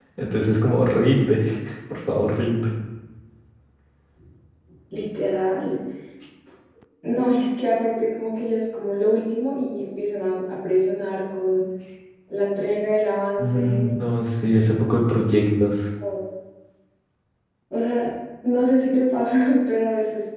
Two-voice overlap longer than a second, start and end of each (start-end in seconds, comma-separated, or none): none